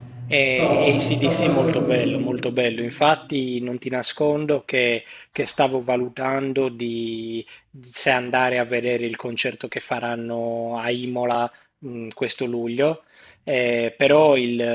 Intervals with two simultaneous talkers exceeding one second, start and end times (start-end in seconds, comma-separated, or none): 0.6-2.1